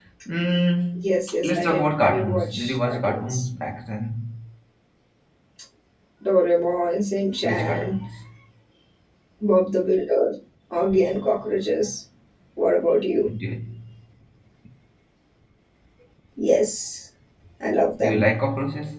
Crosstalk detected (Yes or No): Yes